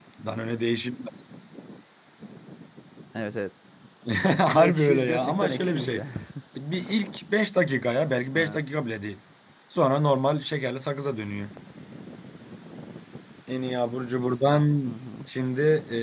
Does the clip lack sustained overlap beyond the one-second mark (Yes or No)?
No